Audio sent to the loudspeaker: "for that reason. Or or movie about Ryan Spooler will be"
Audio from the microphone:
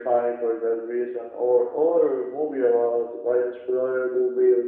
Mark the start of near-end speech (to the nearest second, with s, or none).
none